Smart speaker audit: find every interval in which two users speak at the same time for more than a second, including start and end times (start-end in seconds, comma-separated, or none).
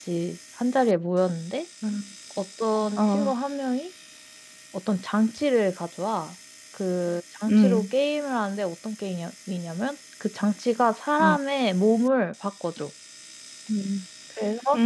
none